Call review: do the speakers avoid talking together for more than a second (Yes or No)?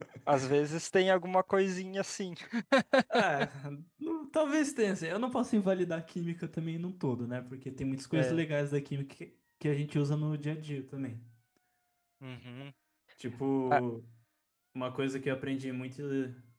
Yes